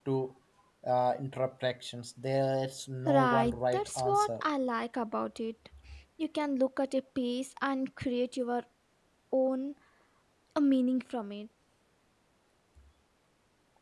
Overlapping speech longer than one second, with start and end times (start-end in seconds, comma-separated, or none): 3.1-4.4